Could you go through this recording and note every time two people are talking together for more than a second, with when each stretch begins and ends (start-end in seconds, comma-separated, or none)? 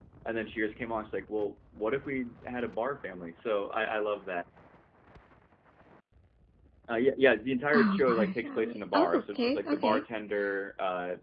7.7-10.0